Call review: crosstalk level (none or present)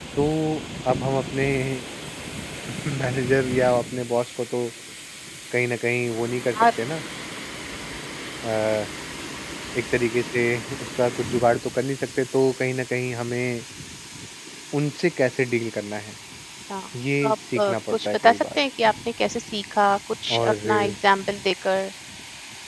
present